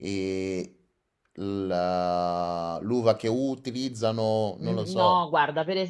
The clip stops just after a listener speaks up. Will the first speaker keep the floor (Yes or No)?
No